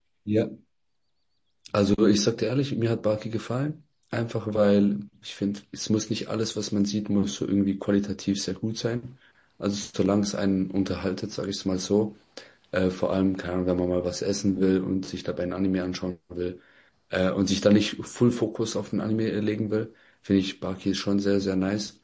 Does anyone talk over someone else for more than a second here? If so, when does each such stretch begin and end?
none

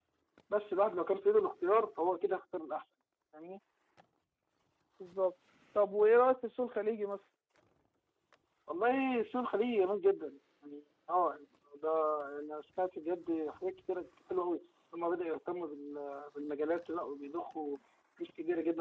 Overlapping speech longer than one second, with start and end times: none

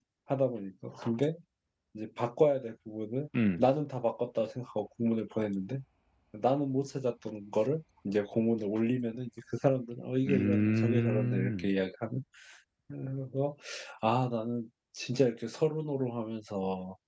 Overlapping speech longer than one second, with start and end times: 10.3-11.7

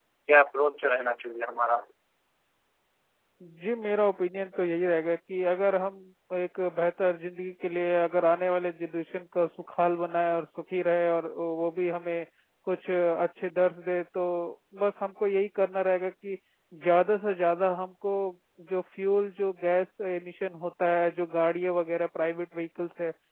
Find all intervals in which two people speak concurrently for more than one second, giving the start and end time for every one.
none

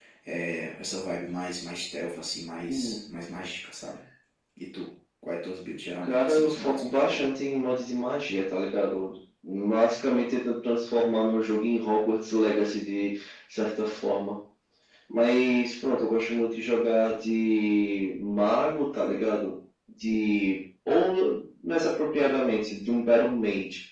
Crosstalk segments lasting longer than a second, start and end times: 6.0-7.3

